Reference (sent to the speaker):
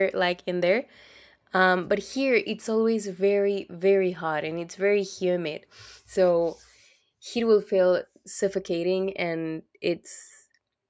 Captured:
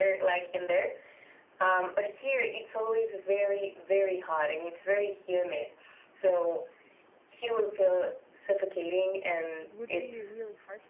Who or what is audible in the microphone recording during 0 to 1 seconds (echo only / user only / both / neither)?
echo only